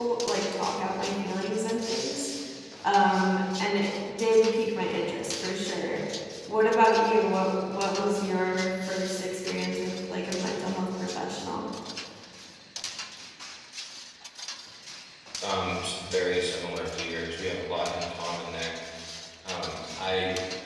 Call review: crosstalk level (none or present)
none